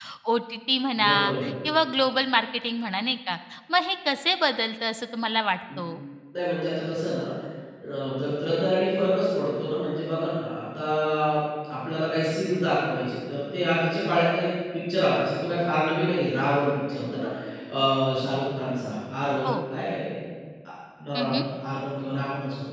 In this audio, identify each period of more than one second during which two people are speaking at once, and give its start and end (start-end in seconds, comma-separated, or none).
none